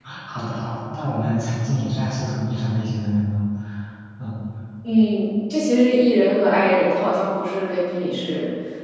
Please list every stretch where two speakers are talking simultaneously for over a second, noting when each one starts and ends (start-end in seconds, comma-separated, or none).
none